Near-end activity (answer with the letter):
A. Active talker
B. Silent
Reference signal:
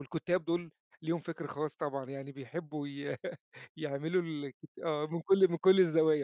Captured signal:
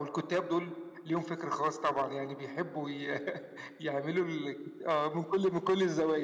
B